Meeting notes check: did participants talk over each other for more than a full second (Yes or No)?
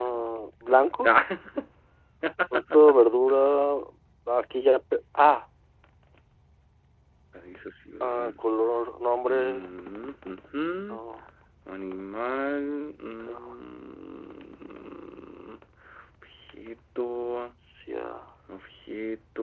No